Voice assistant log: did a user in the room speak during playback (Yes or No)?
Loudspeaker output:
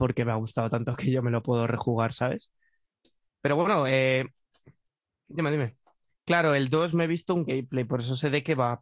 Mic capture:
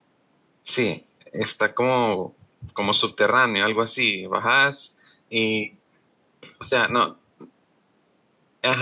Yes